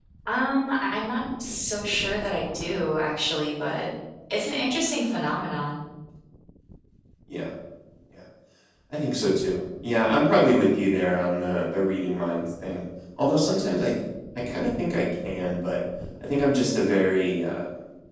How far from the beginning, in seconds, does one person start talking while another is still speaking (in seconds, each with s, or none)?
none